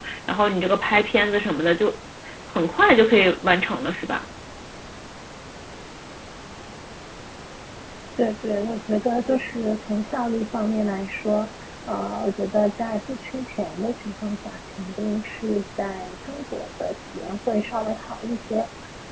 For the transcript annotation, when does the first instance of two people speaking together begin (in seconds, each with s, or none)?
none